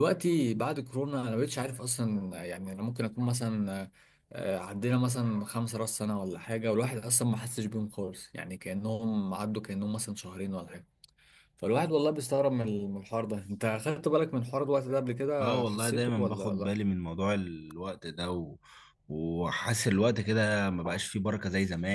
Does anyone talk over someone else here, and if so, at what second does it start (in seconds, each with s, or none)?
15.4 s